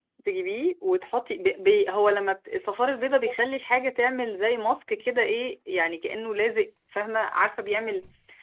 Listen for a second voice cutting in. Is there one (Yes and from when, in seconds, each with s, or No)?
No